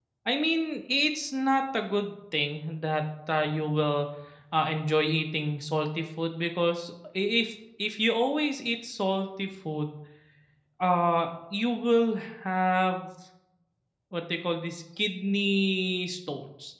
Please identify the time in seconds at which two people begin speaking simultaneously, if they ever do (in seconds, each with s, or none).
none